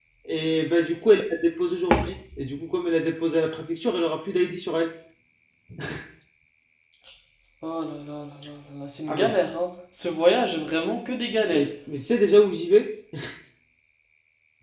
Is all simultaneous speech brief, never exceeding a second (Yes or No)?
Yes